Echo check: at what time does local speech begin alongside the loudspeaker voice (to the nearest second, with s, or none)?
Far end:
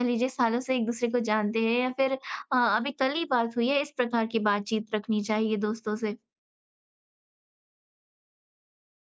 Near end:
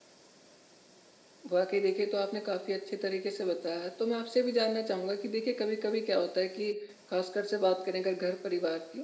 2 s